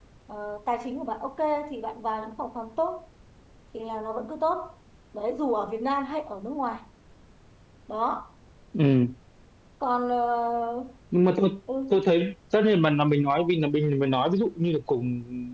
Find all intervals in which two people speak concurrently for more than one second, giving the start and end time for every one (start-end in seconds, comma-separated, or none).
none